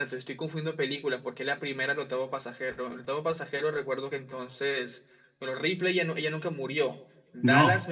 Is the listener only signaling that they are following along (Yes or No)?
Yes